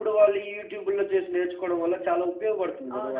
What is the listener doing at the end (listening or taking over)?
taking over